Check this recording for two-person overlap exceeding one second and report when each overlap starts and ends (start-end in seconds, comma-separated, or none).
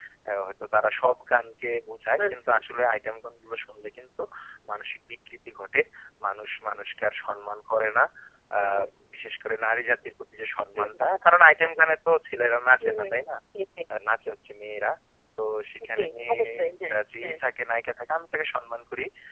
15.9-17.3